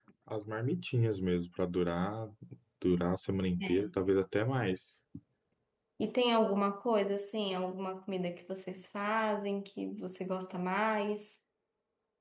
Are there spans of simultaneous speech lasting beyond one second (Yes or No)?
No